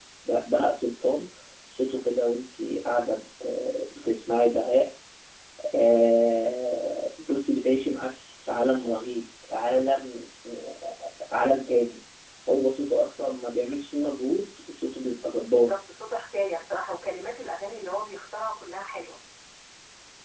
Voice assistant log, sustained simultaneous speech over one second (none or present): none